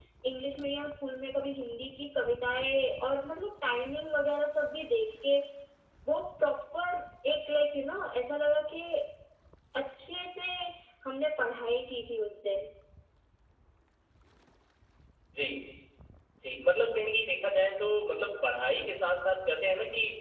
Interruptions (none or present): none